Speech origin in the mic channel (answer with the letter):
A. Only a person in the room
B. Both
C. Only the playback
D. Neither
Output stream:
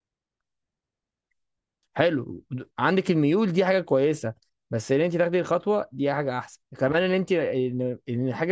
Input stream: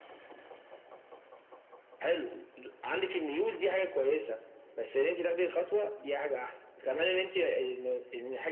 C